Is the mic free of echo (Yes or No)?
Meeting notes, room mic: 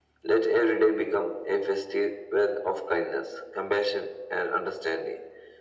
No